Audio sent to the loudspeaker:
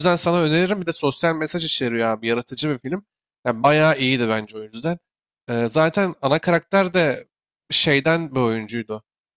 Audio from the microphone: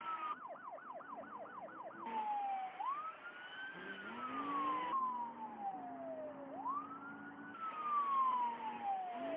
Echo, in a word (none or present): none